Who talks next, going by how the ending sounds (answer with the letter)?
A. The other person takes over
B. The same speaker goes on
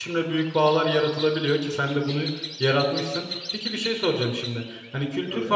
B